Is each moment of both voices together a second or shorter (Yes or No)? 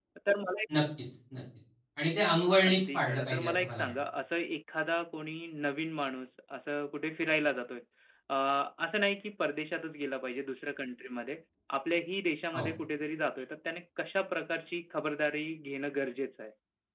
No